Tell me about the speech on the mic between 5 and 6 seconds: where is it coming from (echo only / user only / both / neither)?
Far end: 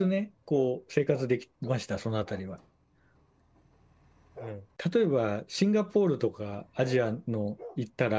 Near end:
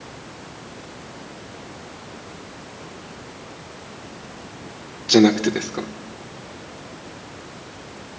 user only